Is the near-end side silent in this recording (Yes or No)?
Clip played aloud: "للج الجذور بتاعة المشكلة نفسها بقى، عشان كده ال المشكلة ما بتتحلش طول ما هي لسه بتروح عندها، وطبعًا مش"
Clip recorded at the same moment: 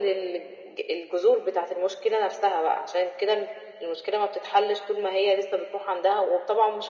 Yes